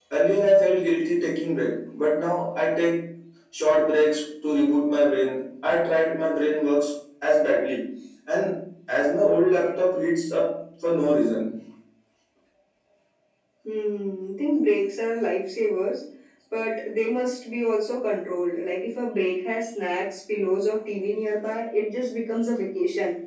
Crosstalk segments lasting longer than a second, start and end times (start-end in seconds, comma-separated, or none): none